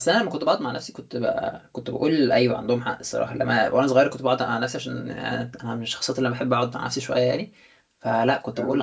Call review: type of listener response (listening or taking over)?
listening